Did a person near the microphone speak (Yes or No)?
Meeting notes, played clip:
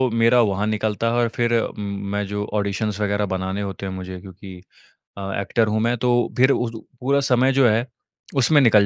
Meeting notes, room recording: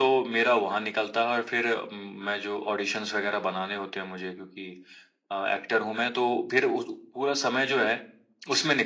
No